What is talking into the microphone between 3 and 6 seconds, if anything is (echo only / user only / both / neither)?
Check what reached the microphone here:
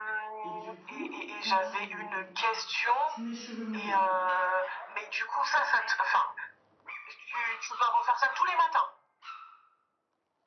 both